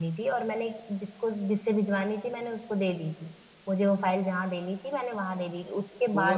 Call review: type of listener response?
taking over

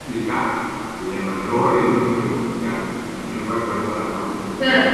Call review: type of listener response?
taking over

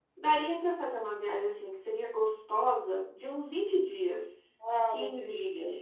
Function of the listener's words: taking over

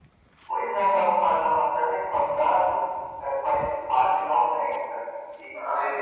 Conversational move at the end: listening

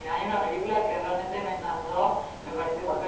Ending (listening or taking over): listening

